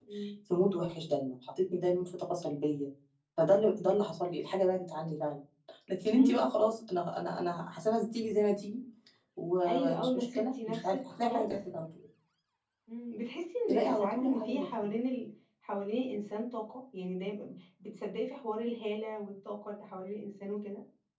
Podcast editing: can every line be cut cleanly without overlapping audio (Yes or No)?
No